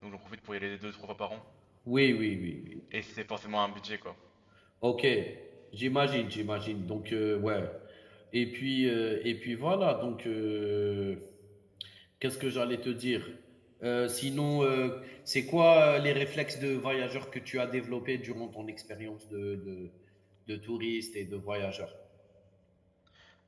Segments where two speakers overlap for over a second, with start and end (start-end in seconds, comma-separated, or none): none